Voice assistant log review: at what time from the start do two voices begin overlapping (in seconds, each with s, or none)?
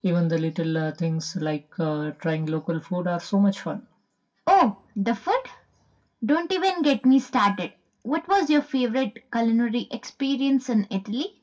none